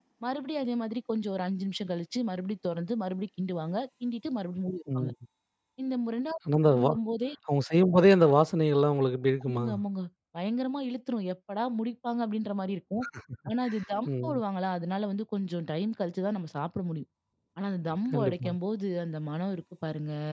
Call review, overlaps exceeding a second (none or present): none